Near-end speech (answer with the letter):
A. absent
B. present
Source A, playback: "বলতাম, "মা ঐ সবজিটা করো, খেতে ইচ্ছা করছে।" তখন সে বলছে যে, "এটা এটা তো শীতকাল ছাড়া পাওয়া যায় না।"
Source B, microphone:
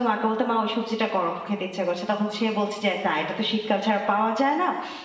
A